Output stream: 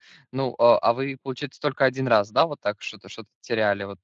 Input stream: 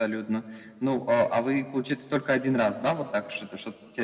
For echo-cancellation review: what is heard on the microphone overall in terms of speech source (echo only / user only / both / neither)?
echo only